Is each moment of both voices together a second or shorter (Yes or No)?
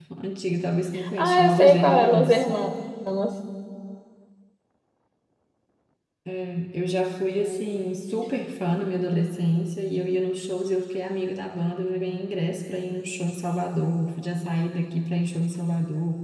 No